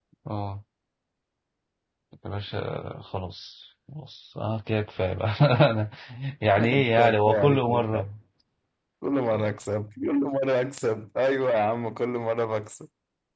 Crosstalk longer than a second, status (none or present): present